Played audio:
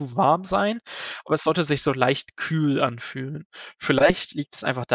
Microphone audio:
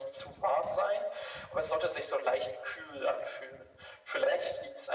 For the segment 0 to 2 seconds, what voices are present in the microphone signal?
echo only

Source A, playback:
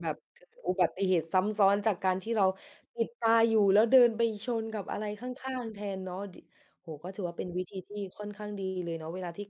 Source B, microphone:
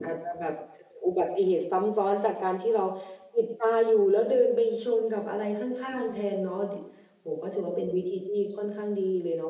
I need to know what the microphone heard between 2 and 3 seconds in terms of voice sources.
echo only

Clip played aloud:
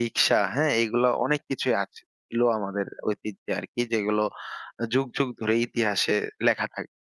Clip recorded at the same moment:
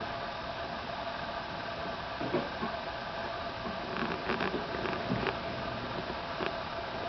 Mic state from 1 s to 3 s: neither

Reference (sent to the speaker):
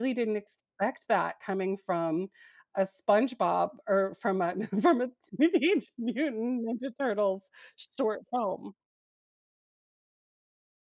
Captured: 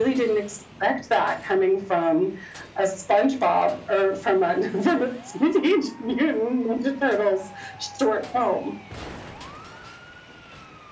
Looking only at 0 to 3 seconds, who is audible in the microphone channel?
echo only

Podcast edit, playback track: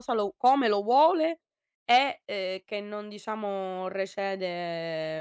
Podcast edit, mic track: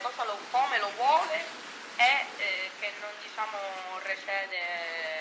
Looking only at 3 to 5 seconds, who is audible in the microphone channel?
echo only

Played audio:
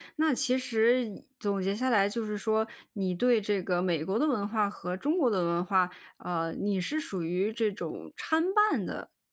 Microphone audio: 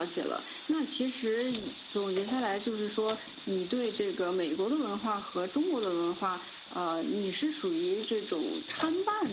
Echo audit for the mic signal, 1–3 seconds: echo only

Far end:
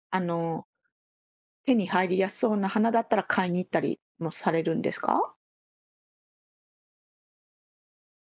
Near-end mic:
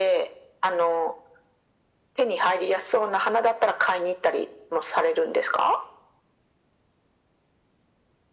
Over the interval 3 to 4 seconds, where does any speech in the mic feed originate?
echo only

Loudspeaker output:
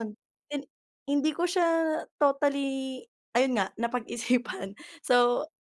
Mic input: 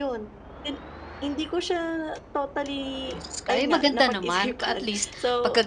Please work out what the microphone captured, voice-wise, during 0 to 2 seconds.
echo only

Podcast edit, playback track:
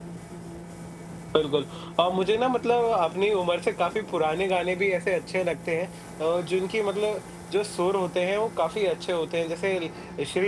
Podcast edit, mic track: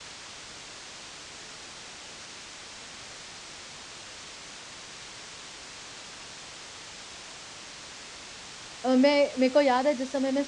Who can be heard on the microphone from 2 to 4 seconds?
neither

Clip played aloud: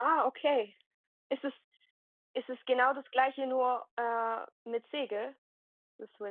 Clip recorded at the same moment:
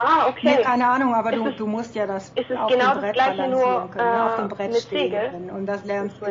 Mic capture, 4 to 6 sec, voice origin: both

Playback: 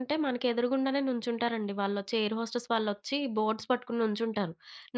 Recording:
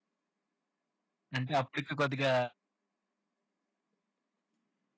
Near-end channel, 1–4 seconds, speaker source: user only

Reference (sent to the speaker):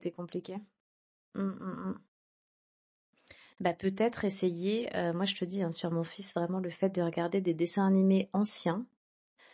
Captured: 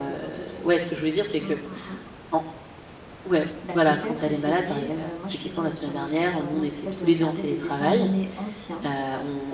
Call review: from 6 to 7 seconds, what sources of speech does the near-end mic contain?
both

